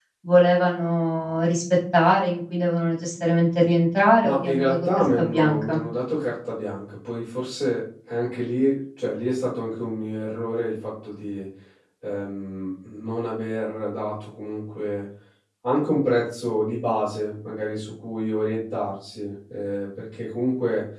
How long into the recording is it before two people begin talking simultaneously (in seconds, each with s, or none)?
4.2 s